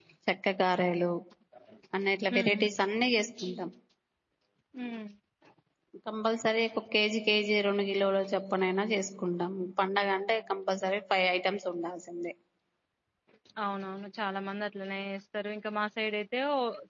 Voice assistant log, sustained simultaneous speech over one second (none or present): none